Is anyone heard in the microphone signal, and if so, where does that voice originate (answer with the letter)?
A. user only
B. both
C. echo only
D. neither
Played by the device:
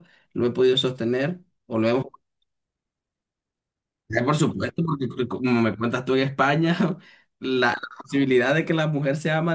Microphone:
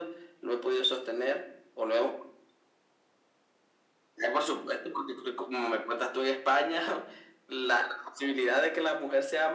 C